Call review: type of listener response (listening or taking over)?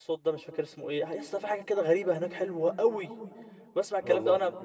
listening